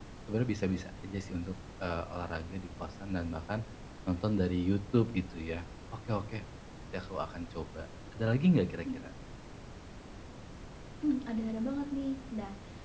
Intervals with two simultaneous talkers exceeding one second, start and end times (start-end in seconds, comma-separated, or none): none